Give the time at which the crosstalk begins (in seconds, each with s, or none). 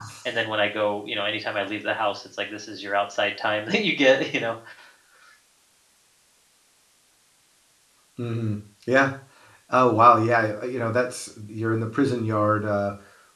none